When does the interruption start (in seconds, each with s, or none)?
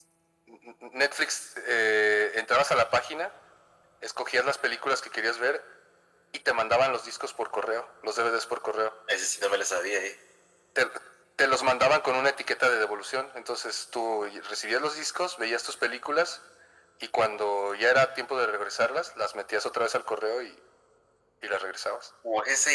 none